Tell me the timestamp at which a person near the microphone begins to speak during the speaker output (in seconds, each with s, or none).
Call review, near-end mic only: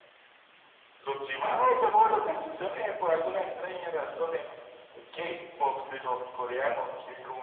none